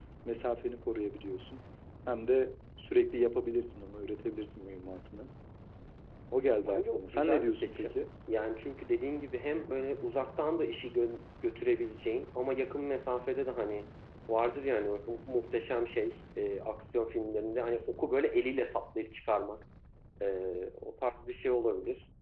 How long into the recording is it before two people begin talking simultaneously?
6.6 s

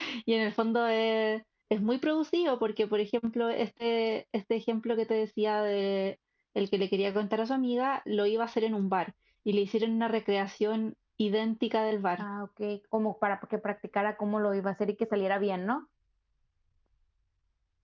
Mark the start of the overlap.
none

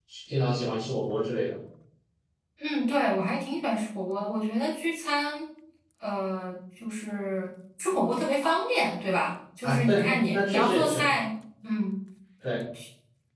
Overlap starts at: 9.6 s

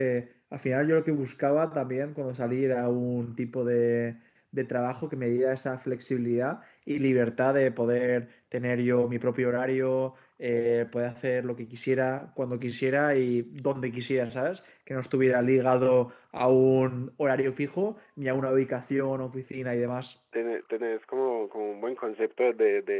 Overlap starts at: none

